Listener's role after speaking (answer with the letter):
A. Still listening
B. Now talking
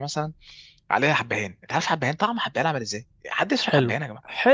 B